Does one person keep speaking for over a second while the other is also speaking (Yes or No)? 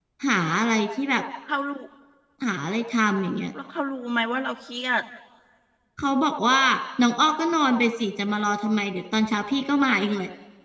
No